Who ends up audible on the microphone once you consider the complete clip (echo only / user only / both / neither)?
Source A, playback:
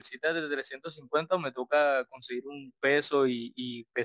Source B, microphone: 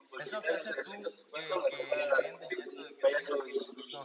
both